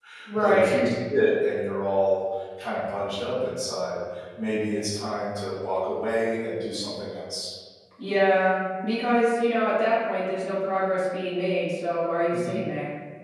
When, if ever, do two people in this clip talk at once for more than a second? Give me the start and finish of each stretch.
none

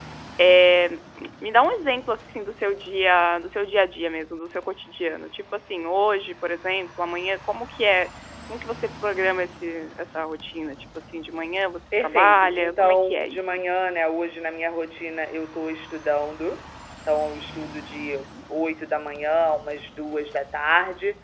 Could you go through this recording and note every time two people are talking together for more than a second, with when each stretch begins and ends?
12.0-13.6

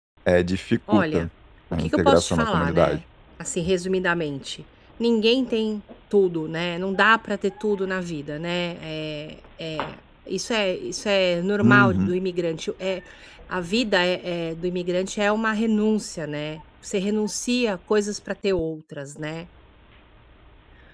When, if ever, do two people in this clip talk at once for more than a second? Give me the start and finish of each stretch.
1.7-3.0

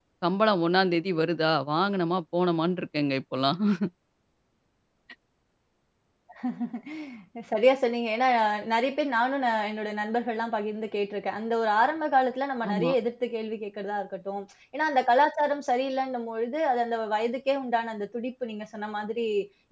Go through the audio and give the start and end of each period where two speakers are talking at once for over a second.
none

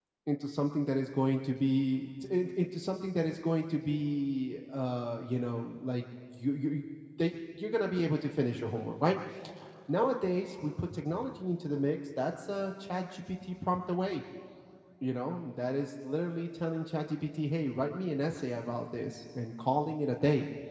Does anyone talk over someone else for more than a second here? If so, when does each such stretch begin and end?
none

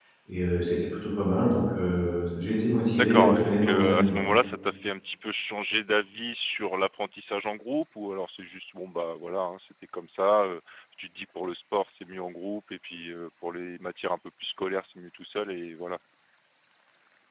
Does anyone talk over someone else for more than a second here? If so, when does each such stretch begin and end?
2.9-4.2

